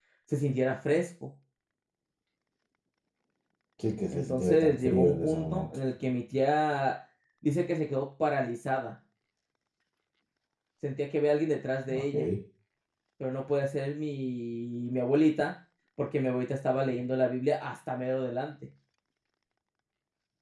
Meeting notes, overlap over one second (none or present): present